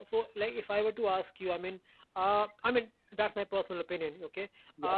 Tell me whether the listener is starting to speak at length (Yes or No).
No